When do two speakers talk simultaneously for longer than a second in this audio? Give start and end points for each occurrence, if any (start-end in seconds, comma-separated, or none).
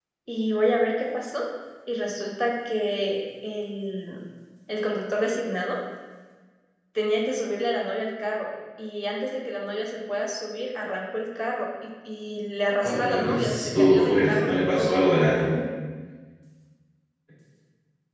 12.8-15.0